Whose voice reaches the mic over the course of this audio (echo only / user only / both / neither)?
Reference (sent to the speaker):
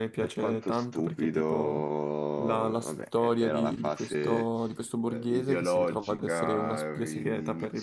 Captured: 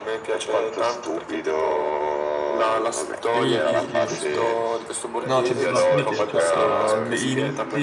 both